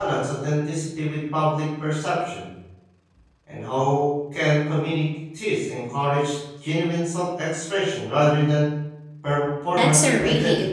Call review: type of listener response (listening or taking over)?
taking over